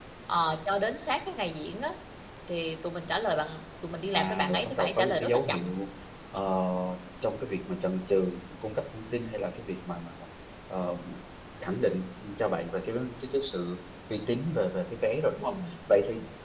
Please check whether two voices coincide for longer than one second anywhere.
Yes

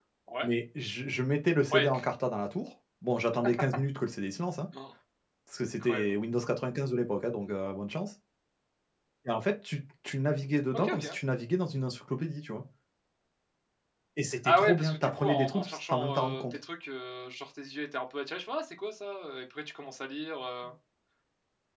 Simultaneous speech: Yes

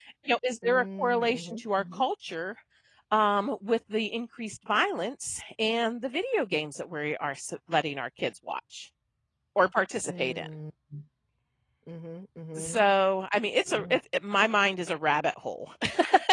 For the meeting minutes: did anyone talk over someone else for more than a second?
Yes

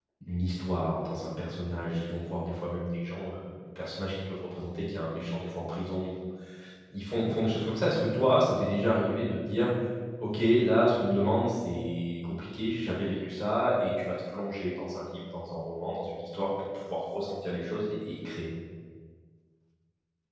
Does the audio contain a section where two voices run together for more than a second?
No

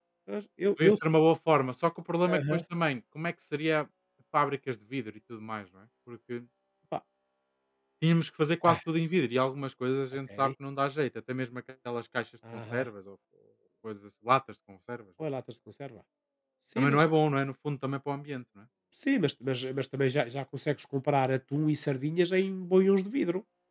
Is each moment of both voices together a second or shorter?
Yes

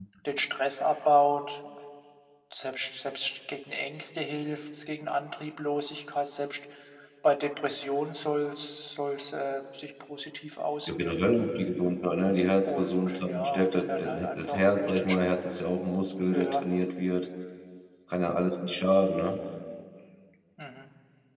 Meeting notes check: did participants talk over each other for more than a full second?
Yes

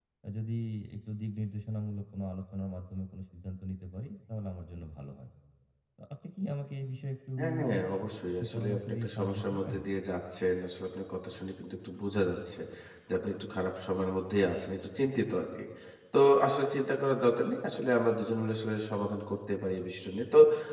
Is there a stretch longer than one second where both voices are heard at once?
Yes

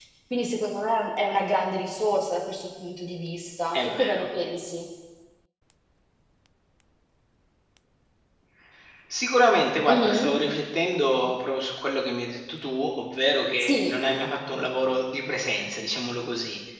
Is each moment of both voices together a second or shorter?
Yes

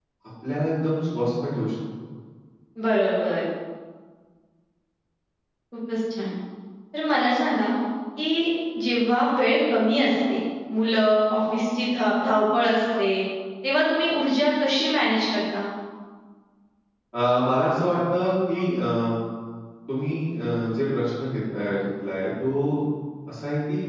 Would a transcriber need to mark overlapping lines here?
No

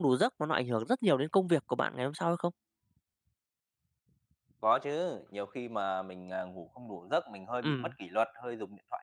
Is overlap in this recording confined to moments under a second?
Yes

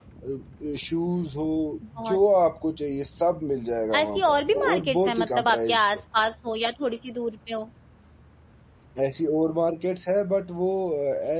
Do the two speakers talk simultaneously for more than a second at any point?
Yes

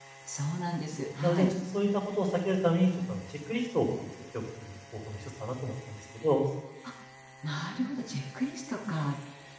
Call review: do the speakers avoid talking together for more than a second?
Yes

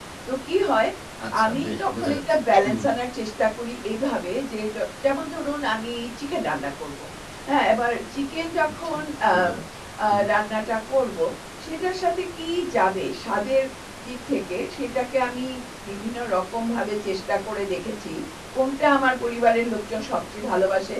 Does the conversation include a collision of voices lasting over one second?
Yes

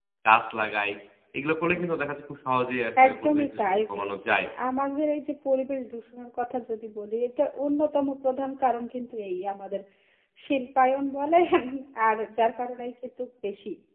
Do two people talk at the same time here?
Yes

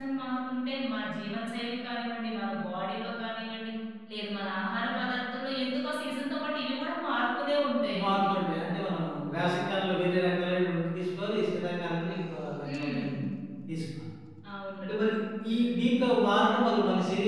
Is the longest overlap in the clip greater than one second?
No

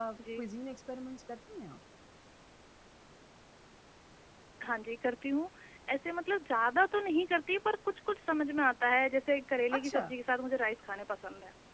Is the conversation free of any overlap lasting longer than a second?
Yes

